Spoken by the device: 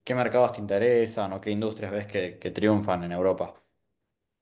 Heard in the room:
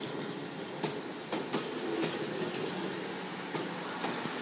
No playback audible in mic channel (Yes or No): Yes